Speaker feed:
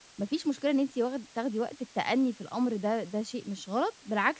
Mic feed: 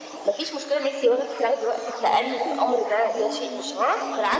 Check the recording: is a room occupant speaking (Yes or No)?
Yes